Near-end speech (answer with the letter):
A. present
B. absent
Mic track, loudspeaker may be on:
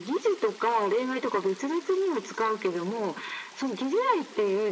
B